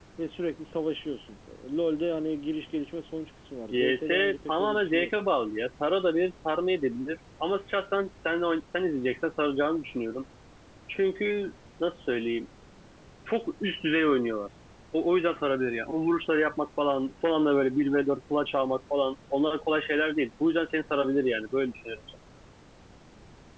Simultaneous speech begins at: 3.7 s

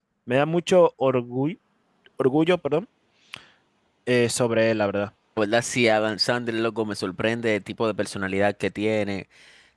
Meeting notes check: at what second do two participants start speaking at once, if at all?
none

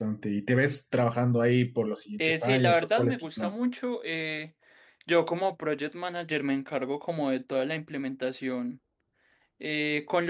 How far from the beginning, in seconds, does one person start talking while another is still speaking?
2.2 s

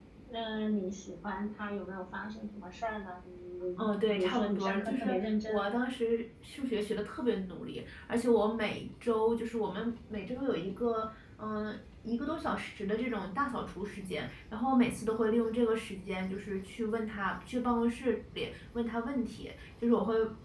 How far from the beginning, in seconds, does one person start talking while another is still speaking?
3.8 s

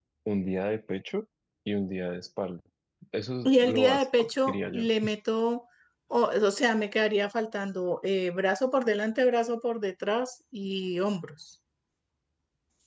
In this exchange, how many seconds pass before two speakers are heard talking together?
3.5 s

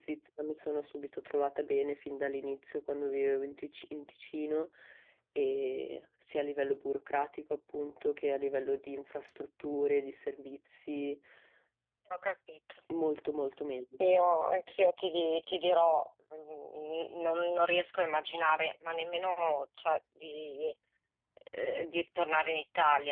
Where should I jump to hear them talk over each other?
none

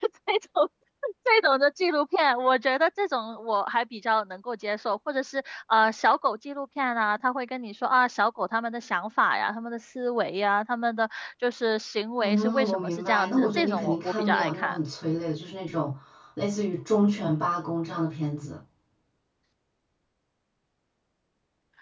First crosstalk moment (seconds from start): 12.2 s

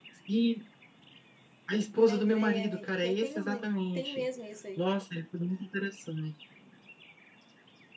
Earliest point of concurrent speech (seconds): 1.9 s

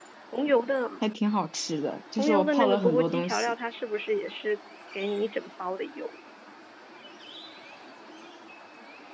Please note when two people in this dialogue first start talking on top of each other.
2.2 s

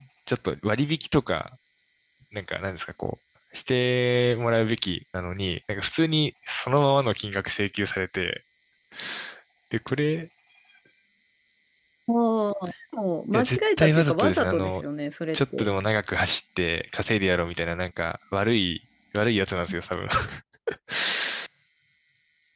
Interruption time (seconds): 13.3 s

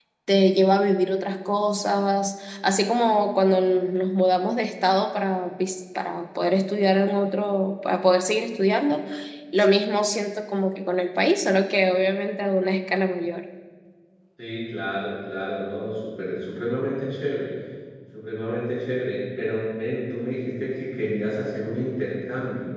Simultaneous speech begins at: none

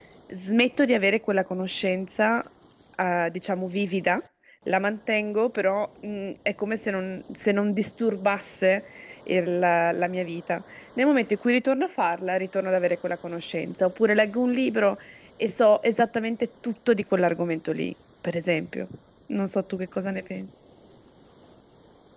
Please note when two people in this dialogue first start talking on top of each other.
none

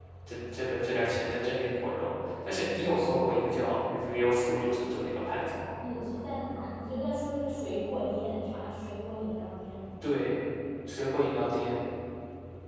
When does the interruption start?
none

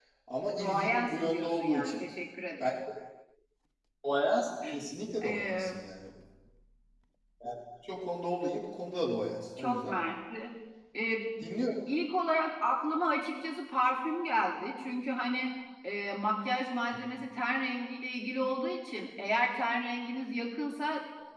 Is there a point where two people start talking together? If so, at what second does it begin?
0.6 s

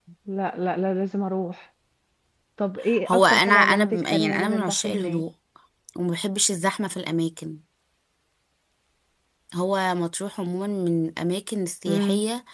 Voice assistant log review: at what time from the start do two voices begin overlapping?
3.1 s

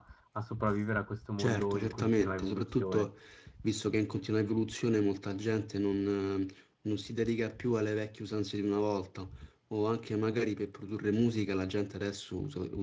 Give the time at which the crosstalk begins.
1.4 s

